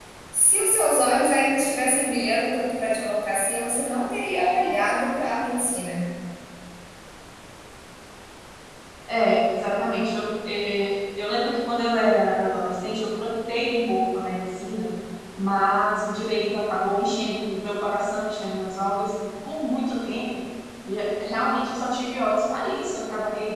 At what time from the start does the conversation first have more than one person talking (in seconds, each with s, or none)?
none